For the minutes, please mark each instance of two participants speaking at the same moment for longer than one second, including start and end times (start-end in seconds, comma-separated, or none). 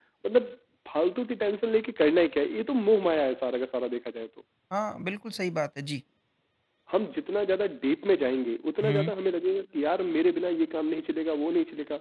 none